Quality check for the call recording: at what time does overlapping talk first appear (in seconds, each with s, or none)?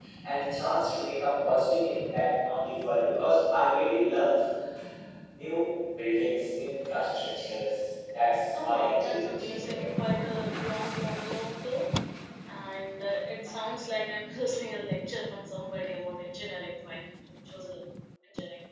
8.5 s